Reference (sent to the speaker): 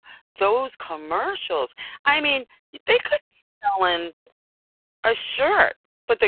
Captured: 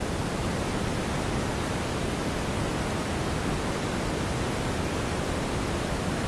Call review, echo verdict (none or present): none